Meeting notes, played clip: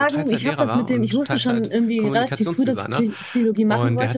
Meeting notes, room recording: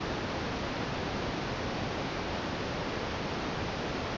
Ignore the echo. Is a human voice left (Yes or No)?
No